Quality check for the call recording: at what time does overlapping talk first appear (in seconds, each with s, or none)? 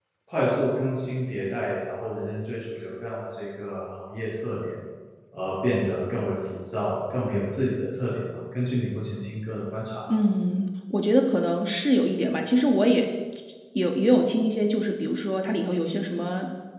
none